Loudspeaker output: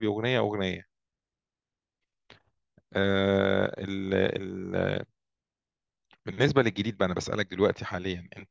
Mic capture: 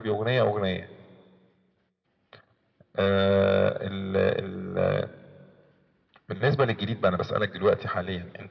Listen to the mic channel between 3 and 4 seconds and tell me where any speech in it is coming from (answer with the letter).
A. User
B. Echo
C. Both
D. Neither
B